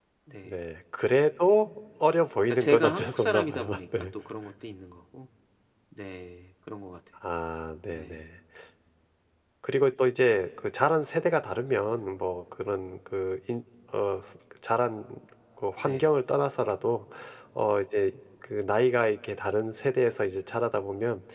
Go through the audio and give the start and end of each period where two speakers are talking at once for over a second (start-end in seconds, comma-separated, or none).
2.5-4.1